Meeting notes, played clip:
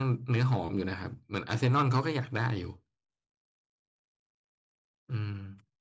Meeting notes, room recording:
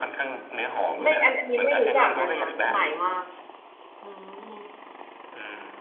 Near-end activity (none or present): present